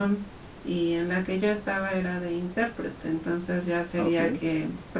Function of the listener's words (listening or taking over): listening